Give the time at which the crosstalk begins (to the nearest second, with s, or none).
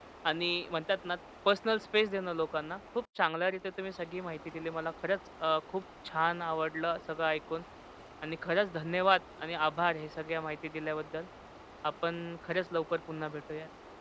none